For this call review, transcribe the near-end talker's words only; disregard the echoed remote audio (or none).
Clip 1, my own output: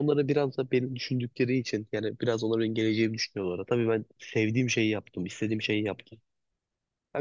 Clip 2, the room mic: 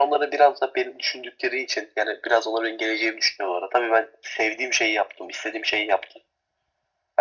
none